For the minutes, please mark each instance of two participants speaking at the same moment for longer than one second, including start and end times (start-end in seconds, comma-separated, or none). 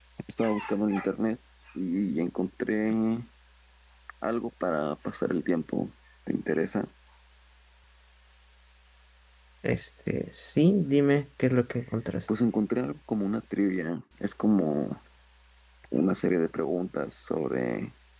none